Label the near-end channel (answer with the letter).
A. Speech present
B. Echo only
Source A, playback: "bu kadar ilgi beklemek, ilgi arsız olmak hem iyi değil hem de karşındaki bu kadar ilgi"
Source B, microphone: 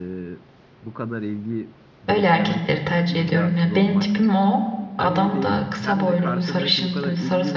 A